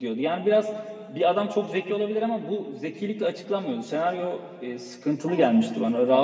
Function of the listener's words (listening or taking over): listening